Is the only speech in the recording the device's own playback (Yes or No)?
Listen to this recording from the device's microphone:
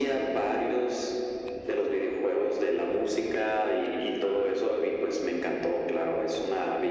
Yes